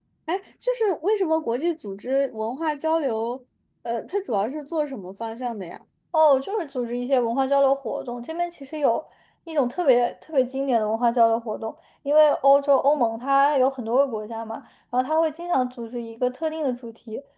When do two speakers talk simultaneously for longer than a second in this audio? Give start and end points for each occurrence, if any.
none

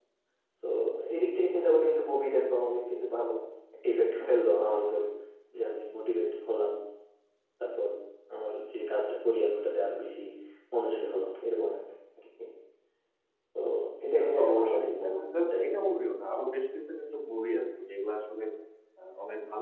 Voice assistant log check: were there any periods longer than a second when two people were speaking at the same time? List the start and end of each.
14.2-15.8

